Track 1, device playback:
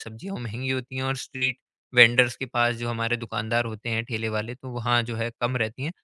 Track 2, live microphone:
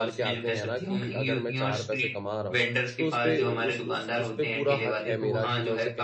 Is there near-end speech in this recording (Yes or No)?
Yes